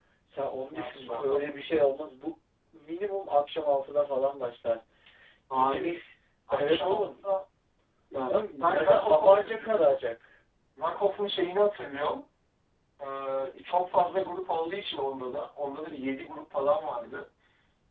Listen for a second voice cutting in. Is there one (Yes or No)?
Yes